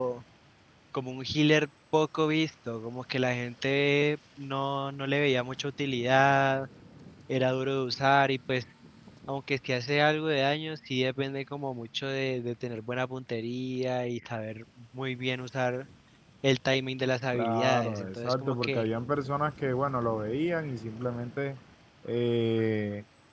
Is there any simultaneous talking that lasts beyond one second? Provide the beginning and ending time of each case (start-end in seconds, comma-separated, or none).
17.3-18.9